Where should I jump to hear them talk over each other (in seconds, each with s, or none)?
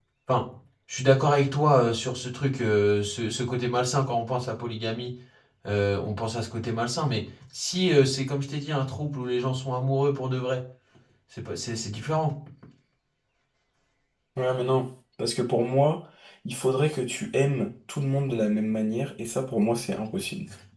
none